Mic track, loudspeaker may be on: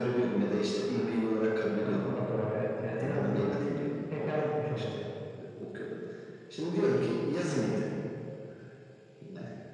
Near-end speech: none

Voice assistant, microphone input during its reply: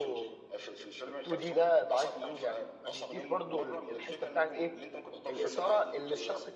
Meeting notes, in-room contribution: present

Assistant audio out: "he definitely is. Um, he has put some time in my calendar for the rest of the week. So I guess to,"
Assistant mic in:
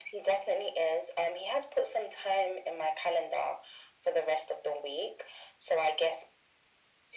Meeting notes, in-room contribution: none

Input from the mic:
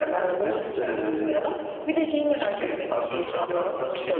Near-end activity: none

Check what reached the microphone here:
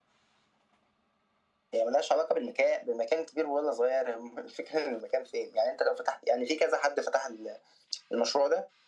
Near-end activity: none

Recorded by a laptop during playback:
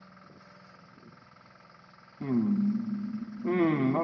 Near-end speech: present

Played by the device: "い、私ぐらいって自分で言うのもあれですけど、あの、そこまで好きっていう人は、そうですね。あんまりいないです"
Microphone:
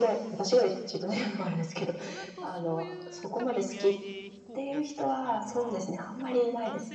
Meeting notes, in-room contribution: present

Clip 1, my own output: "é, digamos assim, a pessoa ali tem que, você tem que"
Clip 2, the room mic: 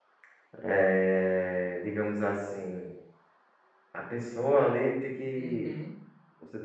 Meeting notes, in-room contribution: present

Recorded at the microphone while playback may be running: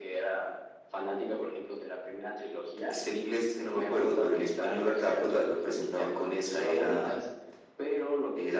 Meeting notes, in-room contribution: none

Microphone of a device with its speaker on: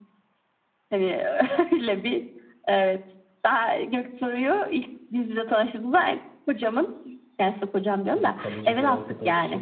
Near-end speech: present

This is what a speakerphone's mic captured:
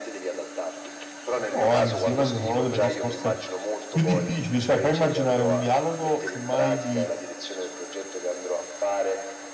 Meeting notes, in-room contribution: present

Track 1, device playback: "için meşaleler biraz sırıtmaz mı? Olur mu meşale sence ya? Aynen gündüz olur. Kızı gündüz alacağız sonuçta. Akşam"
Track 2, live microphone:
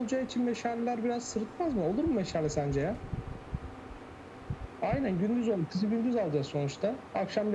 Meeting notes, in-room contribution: none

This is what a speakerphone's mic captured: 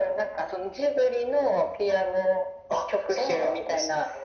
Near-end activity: none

